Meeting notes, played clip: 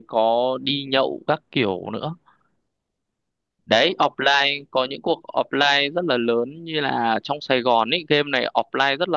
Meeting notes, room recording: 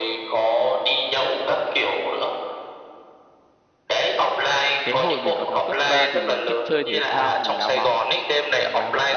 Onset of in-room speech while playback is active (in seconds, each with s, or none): 4.8 s